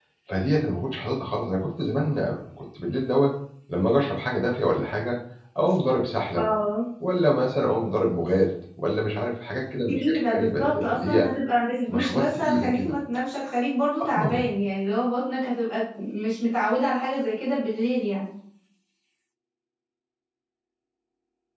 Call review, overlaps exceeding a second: present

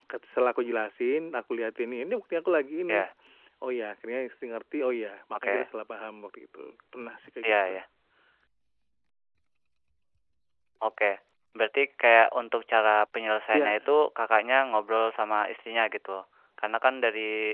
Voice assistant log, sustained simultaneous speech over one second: none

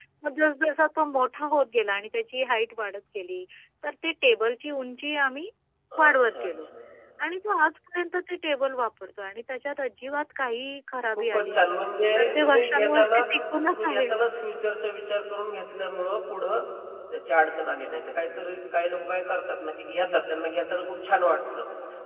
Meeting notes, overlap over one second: present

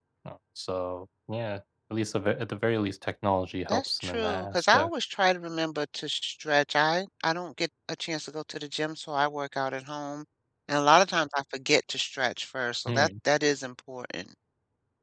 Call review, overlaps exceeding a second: present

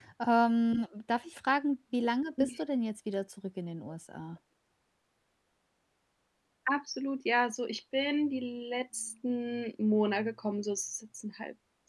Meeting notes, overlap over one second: none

